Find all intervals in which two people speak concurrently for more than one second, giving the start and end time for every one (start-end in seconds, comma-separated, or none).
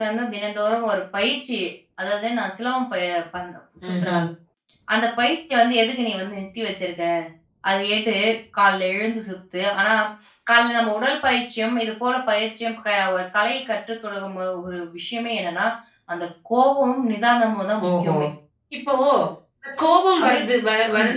none